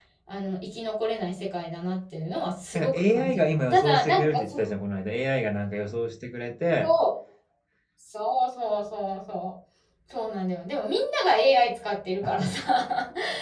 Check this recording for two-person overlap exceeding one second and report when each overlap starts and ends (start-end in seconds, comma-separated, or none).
2.7-4.6